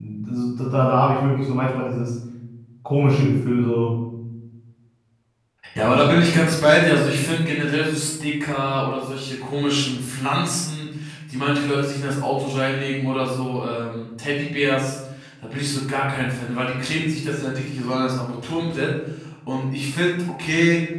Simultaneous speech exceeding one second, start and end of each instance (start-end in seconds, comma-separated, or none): none